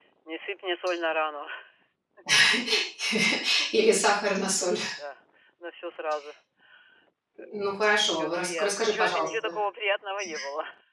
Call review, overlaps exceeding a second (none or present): present